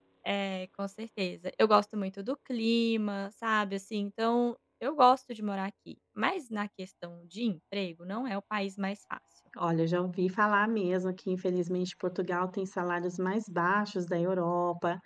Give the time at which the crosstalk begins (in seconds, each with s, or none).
none